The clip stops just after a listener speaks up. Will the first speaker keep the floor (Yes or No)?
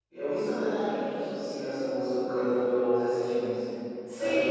No